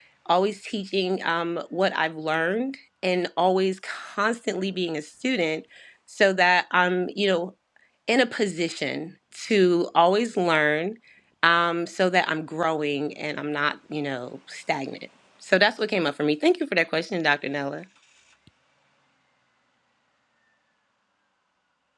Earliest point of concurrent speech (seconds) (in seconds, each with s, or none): none